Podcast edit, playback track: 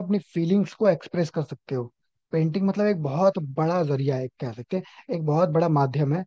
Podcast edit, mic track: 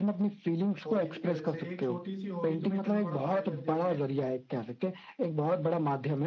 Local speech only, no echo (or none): हॉबीज की वजह से एक छोटी सी हॉबी तुम्हें इतना बड़ा फायदा दे रही है